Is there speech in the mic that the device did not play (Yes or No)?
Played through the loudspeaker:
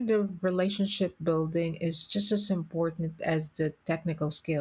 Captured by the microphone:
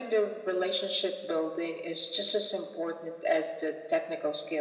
No